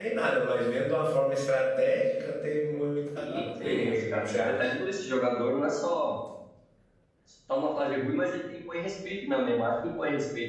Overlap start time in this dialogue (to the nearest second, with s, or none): 3 s